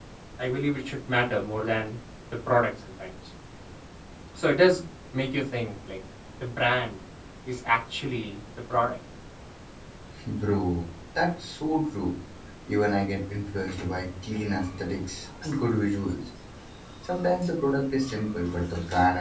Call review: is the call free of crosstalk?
Yes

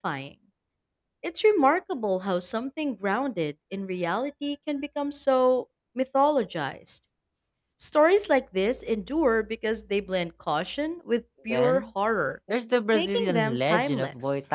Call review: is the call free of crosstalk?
No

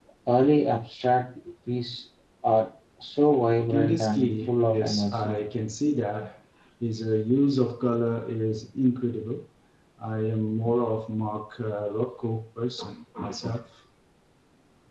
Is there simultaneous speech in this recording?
Yes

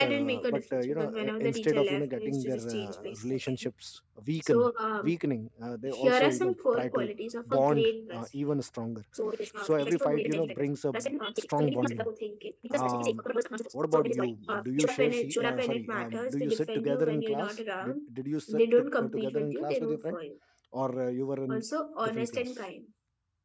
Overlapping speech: Yes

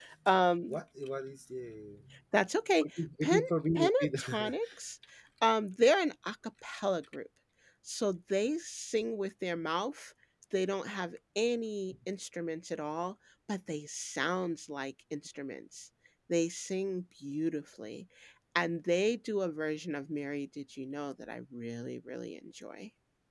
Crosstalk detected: Yes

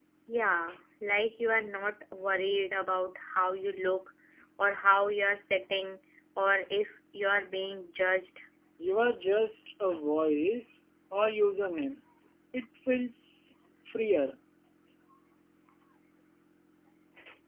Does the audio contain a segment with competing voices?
No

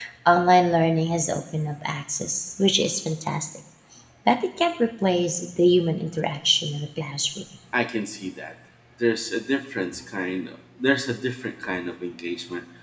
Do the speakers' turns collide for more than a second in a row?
No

